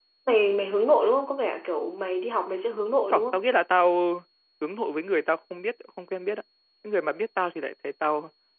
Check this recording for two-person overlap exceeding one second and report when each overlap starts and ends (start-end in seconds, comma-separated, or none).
none